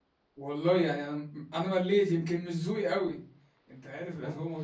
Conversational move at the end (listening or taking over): listening